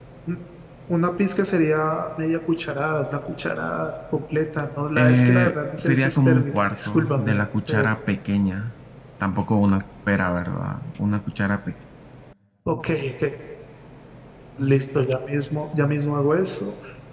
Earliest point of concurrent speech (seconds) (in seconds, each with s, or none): 5.0 s